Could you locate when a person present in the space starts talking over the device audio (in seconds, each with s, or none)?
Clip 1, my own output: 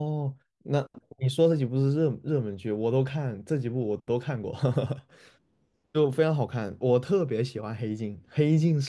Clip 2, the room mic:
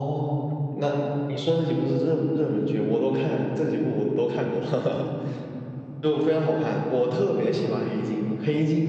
none